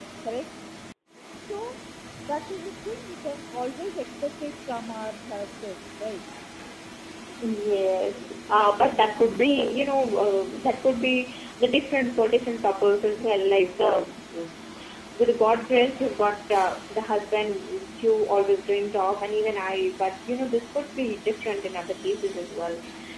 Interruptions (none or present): none